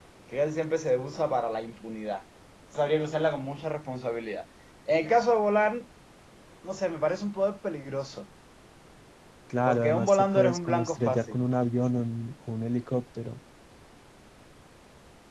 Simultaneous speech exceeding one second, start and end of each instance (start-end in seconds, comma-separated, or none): 9.7-11.4